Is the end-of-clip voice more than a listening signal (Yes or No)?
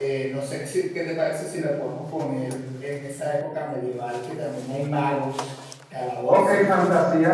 Yes